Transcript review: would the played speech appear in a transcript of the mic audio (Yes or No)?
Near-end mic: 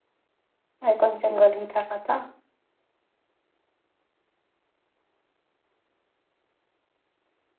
No